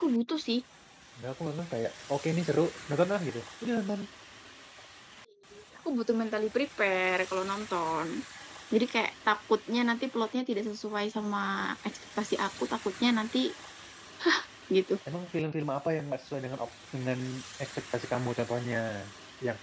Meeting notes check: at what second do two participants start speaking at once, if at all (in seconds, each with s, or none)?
none